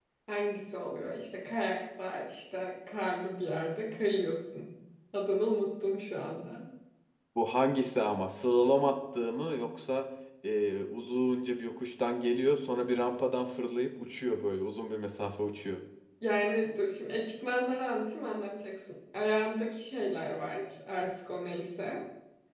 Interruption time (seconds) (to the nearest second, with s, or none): none